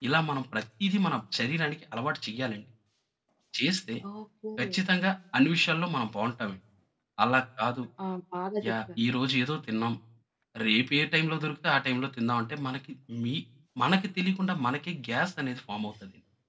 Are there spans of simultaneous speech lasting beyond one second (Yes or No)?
No